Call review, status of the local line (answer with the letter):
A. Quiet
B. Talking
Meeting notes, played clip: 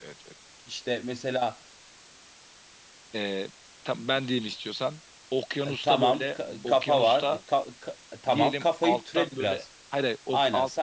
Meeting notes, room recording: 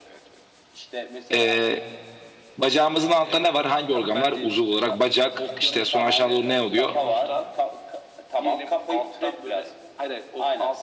B